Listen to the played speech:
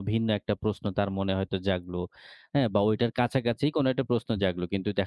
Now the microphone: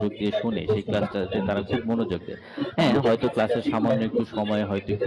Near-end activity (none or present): present